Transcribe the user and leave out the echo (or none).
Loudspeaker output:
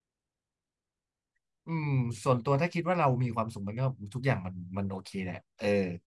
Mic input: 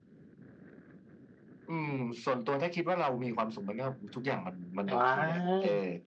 อ๋อ